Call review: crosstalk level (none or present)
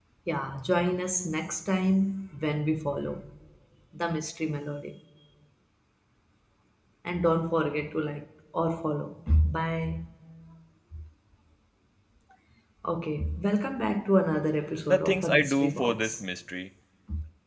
present